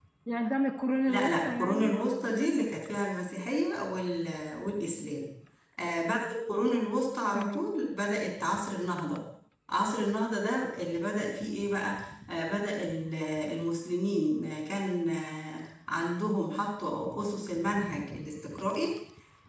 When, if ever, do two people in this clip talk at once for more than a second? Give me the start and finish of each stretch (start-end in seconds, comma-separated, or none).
1.1-2.7